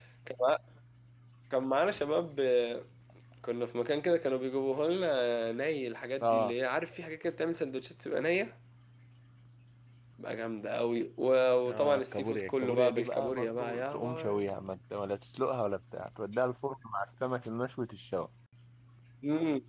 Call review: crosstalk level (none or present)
present